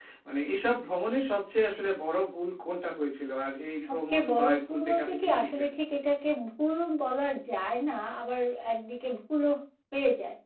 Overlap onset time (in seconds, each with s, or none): 3.8 s